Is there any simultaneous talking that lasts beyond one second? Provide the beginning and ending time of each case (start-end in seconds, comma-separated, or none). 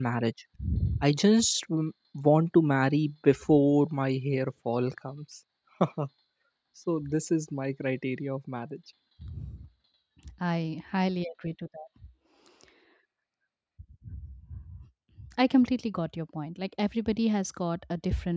none